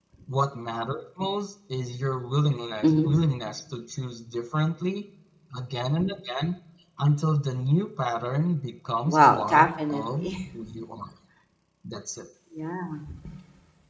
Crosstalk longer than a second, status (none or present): present